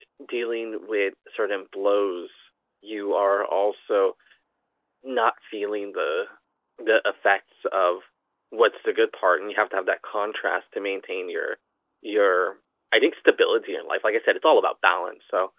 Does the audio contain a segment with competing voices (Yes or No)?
No